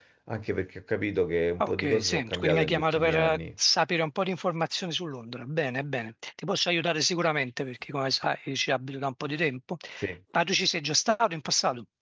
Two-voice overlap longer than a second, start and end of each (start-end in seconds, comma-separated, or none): 1.6-3.4